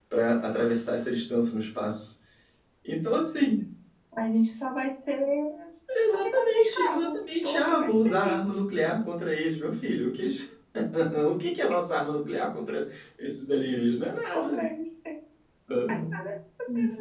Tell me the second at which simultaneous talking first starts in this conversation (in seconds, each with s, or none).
6.1 s